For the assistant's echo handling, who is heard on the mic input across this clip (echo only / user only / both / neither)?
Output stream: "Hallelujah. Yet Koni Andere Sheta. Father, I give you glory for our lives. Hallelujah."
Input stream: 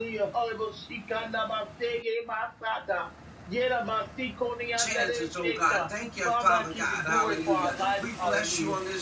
both